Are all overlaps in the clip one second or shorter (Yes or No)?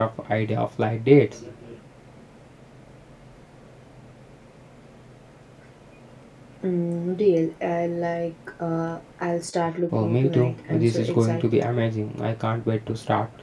No